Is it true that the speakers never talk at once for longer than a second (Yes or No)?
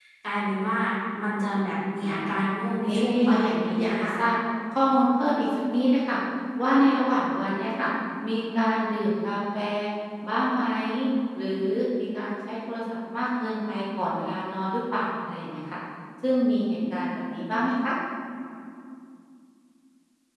No